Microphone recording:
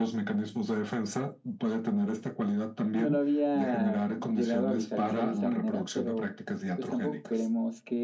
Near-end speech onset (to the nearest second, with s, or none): 3 s